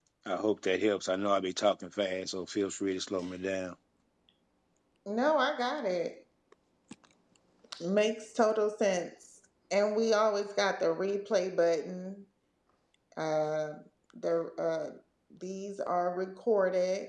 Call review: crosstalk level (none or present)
none